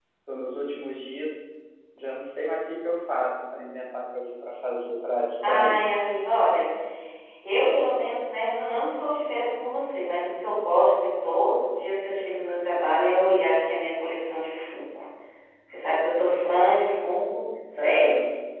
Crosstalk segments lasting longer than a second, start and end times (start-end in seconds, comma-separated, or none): none